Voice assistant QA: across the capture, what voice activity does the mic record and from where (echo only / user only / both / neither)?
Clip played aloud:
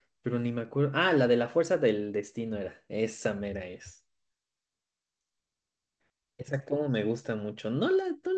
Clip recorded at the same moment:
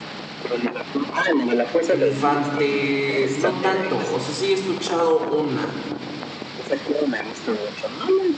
both